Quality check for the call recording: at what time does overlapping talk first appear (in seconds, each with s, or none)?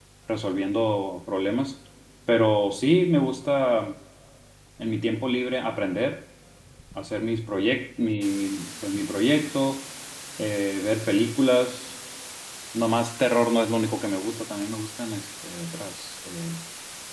none